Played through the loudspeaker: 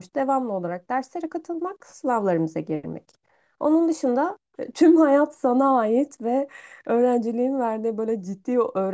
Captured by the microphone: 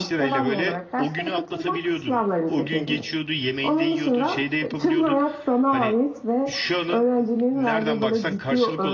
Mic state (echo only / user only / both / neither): both